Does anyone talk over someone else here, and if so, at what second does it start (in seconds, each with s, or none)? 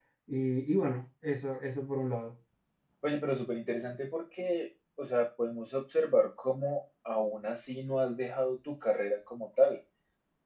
none